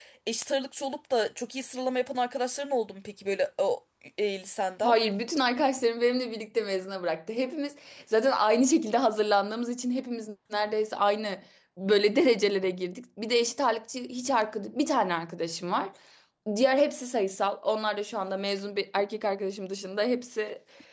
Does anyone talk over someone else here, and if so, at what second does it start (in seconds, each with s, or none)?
none